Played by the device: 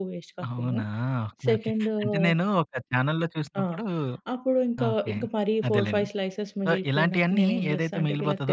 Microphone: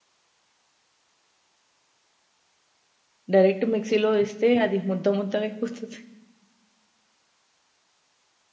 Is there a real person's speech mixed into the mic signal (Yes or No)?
Yes